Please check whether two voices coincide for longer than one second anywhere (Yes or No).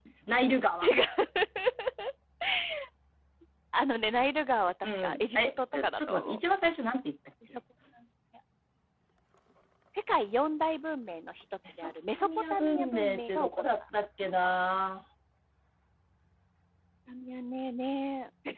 Yes